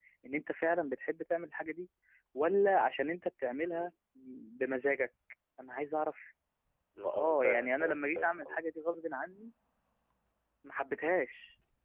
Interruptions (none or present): present